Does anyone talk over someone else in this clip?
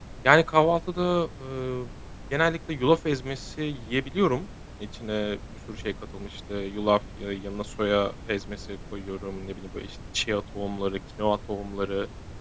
No

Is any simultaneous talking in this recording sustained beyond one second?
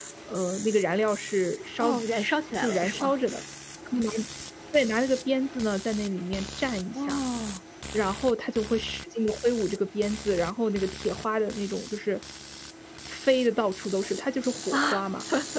Yes, from 1.8 s

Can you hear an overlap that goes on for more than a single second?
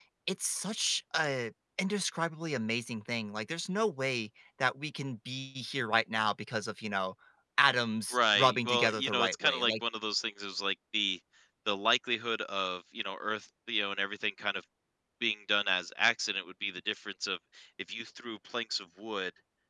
Yes, from 8.1 s

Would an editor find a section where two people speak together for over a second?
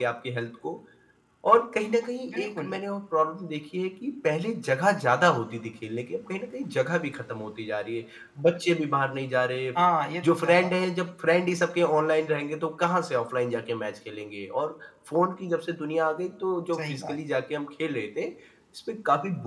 No

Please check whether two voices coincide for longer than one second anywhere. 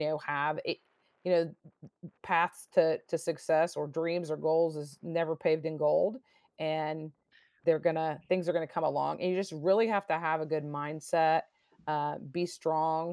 No

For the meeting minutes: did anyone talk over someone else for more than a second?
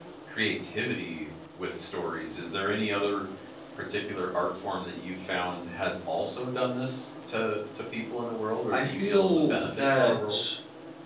Yes, from 8.7 s

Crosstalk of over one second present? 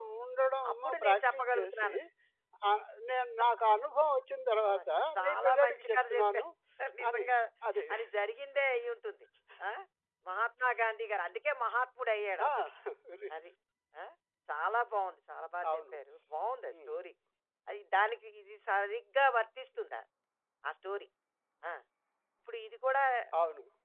Yes, from 0.7 s

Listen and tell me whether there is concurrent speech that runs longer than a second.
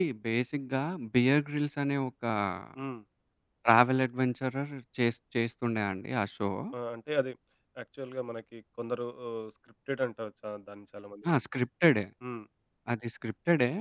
No

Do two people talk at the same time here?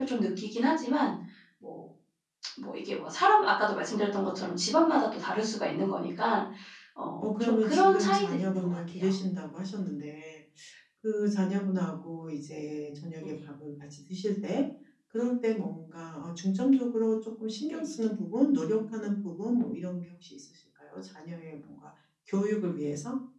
Yes, from 7.2 s

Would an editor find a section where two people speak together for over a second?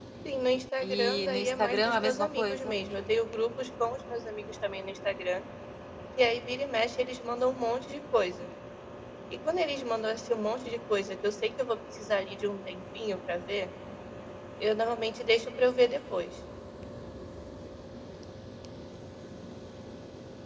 Yes, from 0.8 s

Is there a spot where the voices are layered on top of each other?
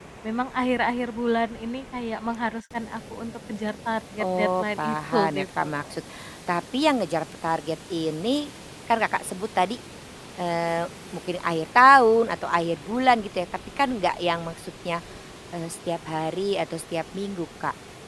Yes, from 4.2 s

